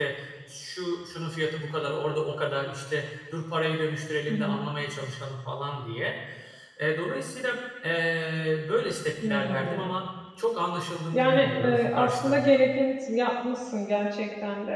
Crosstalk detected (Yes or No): Yes